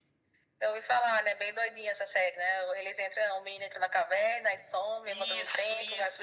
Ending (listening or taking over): taking over